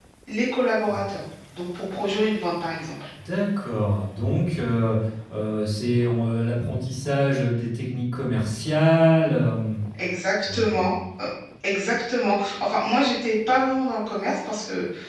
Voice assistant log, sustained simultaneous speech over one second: none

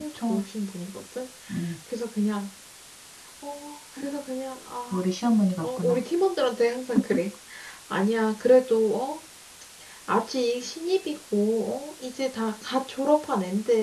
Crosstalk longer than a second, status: none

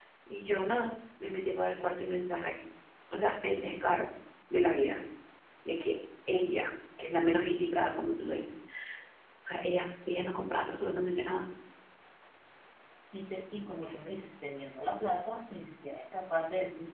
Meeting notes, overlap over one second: none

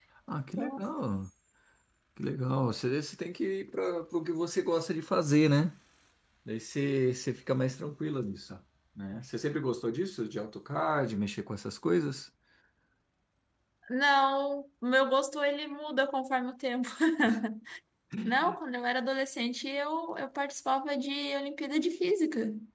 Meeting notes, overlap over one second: none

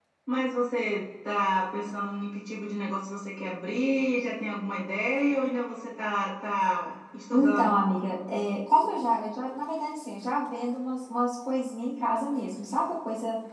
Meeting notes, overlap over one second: none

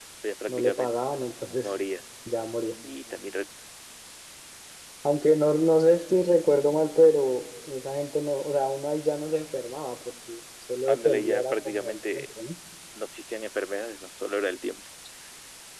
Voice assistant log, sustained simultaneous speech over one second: present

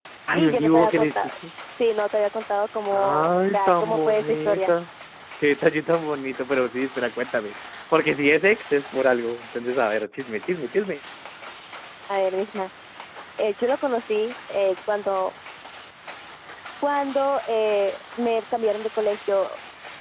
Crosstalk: present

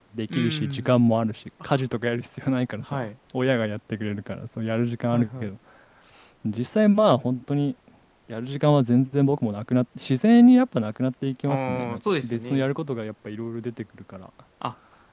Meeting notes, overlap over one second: present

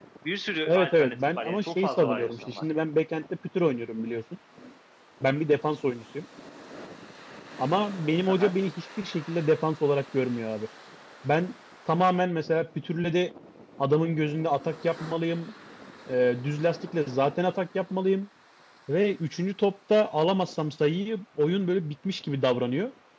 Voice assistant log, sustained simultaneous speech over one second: present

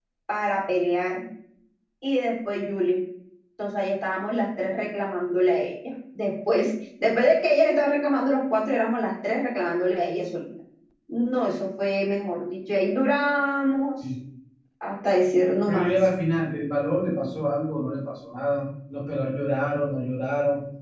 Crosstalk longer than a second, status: none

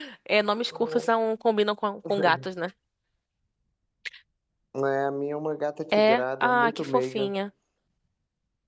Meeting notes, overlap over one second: present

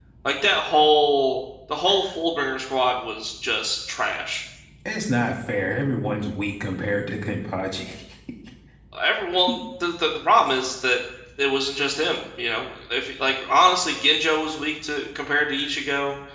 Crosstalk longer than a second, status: none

